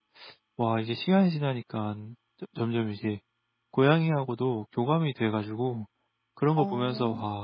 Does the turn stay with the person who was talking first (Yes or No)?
Yes